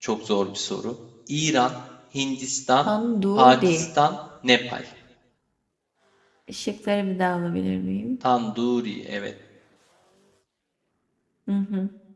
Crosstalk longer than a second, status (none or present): none